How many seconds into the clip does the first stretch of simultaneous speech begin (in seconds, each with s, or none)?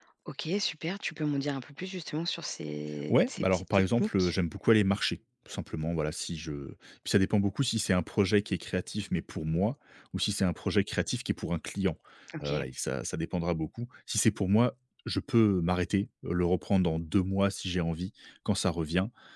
3.1 s